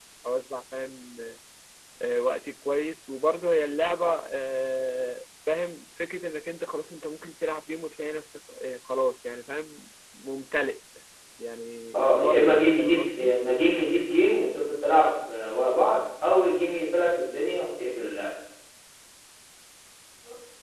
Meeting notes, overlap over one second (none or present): present